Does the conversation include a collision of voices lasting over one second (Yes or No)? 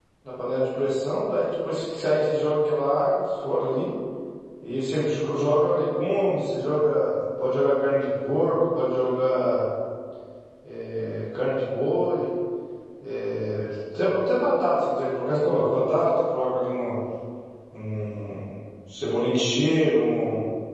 No